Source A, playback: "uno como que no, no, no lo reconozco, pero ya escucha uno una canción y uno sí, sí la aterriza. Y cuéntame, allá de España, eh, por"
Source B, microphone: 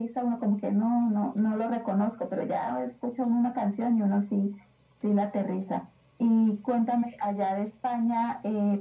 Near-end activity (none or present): none